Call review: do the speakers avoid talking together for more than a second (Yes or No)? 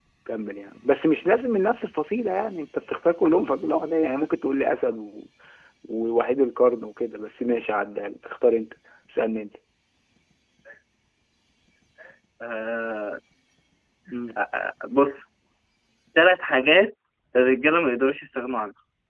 Yes